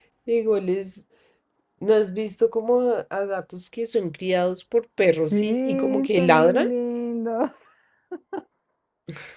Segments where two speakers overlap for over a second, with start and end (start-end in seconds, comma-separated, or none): 5.3-6.7